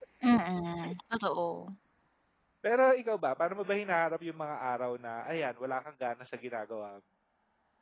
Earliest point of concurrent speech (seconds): none

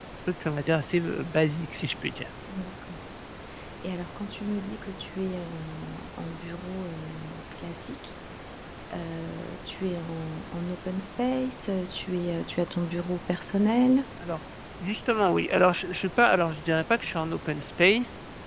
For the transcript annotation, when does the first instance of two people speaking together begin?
none

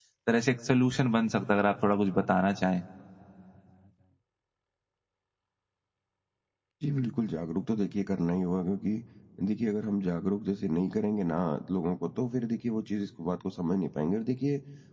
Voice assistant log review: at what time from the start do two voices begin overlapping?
none

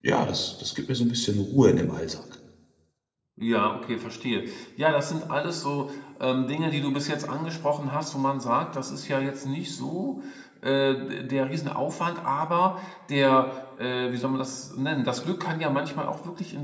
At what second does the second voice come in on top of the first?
none

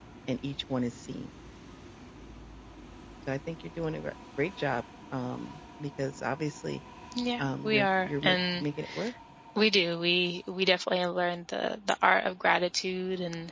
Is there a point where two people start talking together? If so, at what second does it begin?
7.4 s

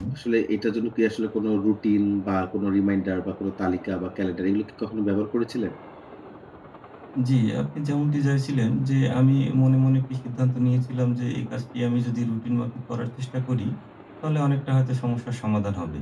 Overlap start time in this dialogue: none

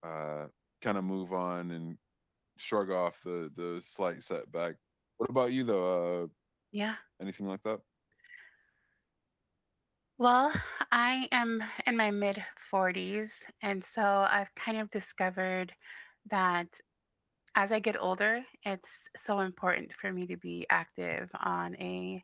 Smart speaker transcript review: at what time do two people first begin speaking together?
none

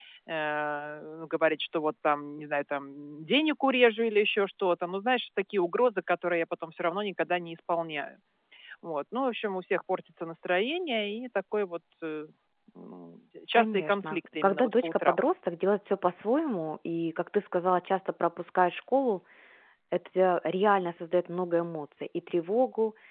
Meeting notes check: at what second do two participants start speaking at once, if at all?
13.5 s

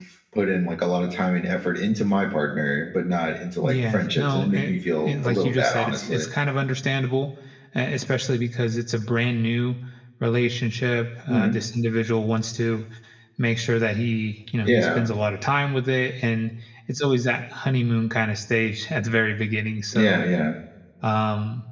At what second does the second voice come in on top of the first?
3.6 s

